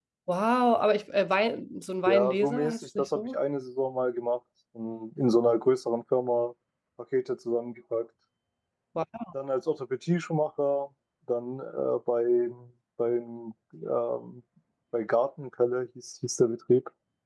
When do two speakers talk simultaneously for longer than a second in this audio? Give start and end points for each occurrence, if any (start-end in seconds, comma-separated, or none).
2.1-3.4